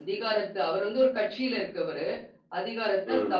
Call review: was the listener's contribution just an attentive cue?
Yes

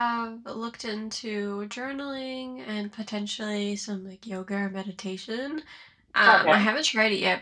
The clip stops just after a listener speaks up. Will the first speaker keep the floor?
Yes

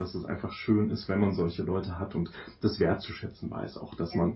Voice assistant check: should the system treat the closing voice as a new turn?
No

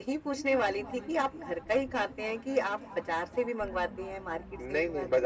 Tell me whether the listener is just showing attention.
No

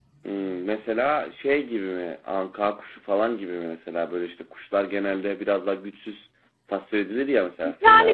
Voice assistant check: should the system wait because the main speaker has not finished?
No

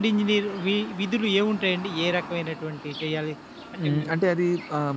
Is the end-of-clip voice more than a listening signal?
Yes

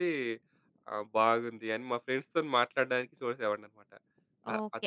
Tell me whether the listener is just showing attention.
No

